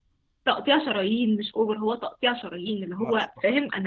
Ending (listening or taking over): listening